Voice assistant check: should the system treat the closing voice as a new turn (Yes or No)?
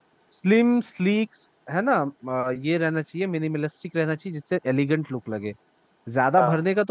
No